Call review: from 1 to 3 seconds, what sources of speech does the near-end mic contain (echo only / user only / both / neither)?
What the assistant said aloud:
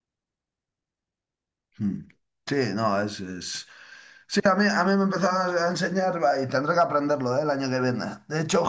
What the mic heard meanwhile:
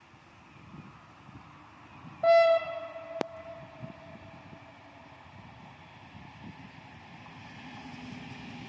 neither